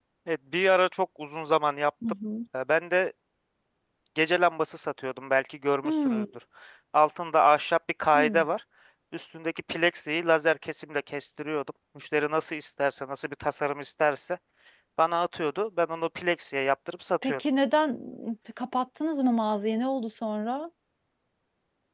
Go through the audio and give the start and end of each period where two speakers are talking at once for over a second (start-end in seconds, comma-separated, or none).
none